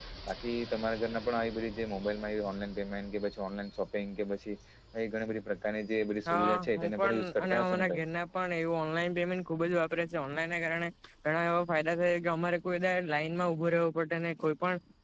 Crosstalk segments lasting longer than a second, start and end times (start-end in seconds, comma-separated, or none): 6.3-8.0